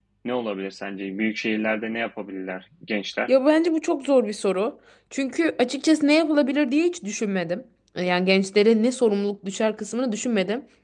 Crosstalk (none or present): none